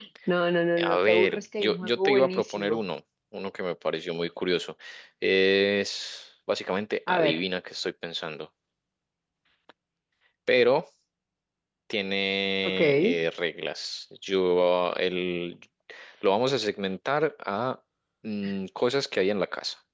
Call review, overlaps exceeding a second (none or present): present